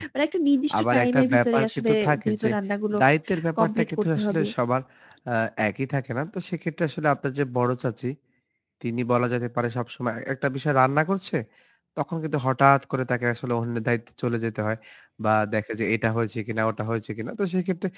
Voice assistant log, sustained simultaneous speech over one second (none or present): present